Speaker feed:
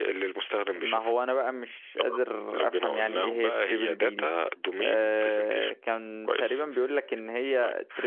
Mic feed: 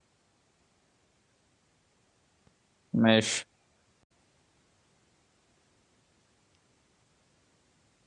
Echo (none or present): none